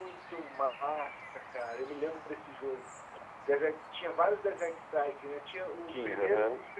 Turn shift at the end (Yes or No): No